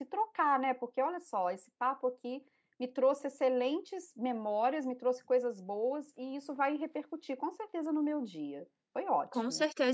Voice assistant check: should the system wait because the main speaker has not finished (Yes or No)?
No